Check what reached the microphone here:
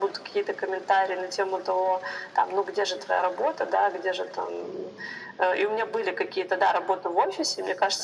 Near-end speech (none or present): none